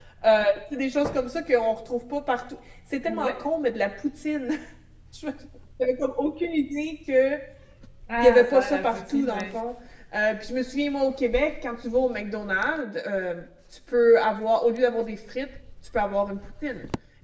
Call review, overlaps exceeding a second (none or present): present